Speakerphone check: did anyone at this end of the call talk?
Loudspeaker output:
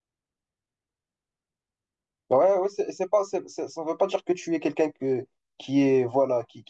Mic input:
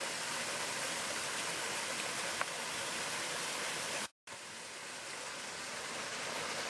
No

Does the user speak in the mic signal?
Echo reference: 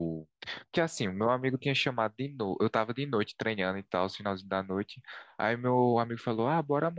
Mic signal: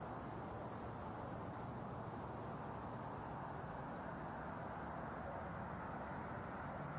No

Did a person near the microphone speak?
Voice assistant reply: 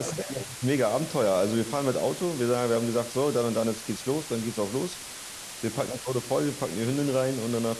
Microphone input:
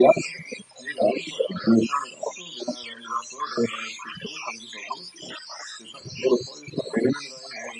No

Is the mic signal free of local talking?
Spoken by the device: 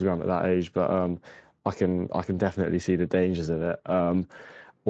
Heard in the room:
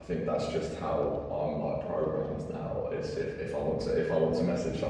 No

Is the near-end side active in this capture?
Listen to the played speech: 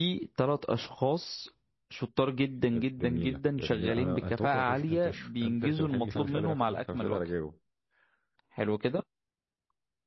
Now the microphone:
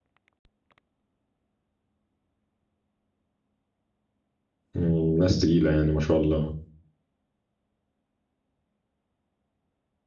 Yes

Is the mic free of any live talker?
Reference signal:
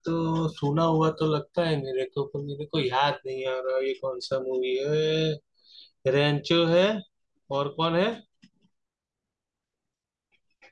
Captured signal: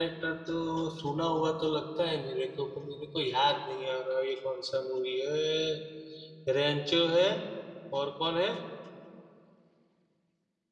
Yes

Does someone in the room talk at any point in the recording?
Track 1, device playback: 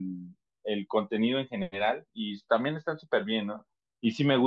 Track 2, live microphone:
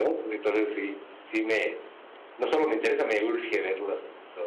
Yes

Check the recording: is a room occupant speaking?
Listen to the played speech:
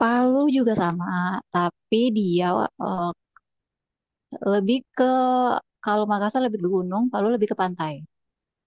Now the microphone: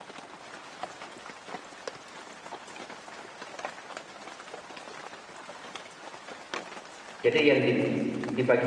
Yes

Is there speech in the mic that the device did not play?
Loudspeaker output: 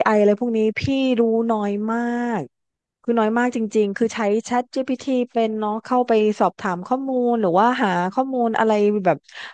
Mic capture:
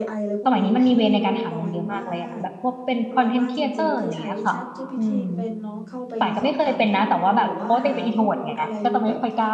Yes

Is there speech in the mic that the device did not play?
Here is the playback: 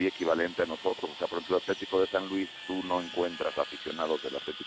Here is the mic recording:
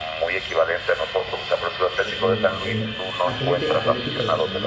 Yes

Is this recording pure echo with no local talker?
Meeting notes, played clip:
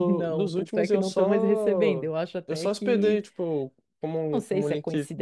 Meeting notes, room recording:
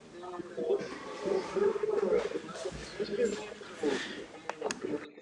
Yes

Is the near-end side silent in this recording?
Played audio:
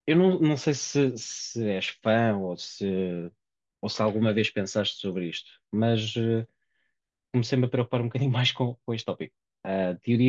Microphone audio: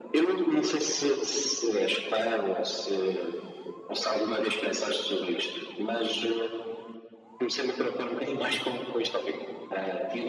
Yes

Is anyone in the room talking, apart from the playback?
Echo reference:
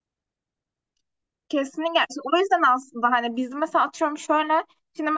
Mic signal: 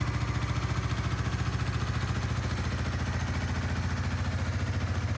No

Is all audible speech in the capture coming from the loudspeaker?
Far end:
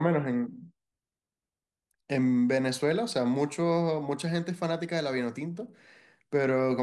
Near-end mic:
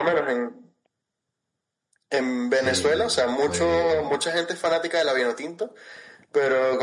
No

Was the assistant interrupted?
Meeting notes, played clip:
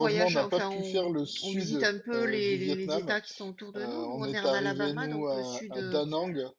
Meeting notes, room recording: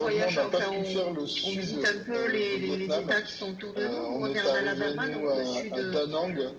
No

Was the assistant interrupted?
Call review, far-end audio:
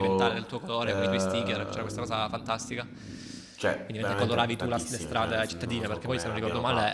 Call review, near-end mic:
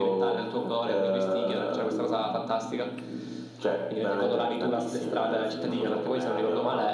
No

